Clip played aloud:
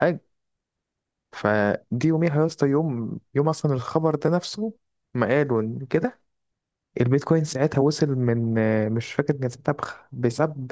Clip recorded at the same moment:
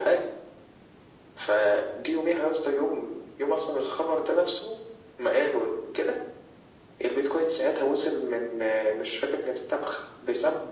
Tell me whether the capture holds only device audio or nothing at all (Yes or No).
Yes